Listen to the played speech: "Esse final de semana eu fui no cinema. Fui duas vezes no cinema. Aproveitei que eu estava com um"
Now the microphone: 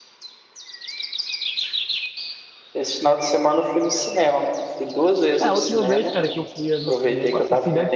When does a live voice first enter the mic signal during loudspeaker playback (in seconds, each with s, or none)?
5.4 s